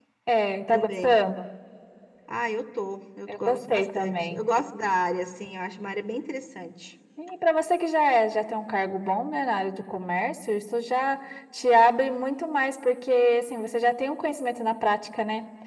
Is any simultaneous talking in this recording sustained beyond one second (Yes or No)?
Yes